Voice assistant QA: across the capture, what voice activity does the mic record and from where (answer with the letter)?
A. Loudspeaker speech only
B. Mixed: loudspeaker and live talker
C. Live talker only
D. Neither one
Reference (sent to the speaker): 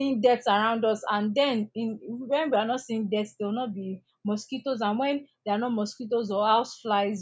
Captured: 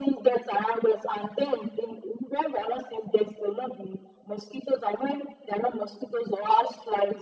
A